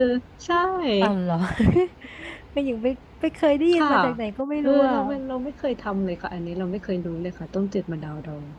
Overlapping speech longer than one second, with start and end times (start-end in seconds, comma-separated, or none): none